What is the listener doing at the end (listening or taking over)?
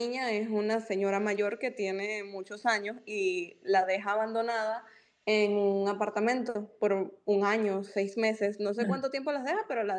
listening